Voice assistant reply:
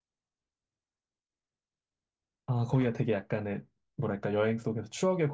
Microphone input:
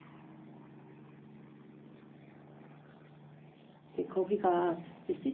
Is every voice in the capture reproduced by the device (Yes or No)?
No